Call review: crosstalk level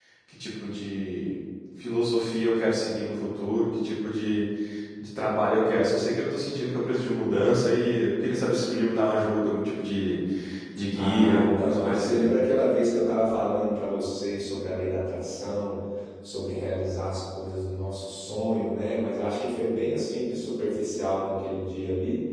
present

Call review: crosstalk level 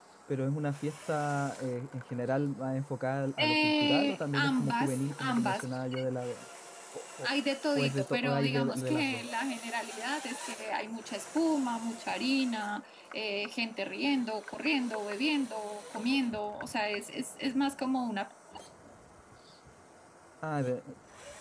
present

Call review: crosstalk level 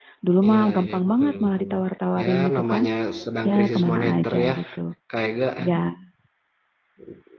present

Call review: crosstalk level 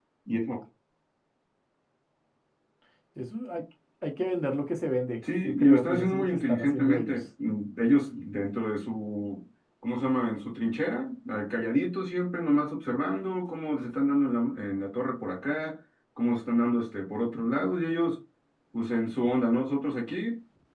present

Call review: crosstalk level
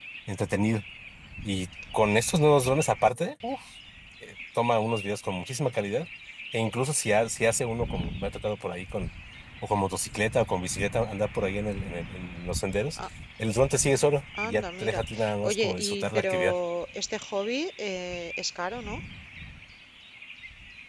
present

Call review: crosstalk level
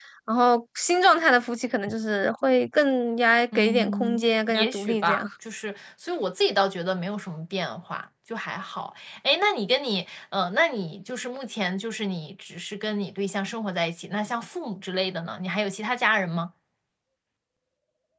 present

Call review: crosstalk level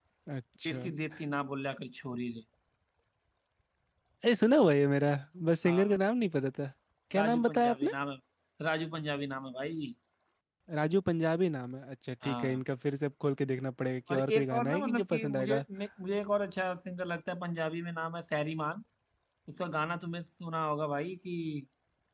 present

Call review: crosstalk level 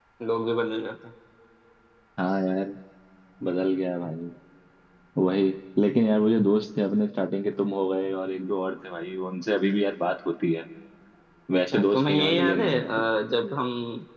present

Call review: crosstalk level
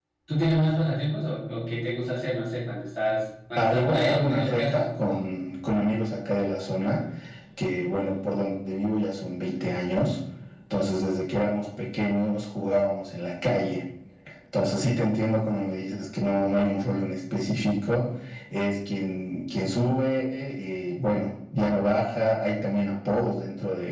present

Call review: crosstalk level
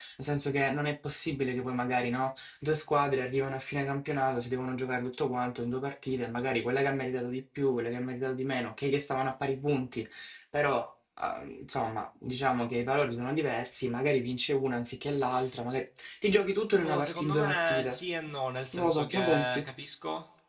present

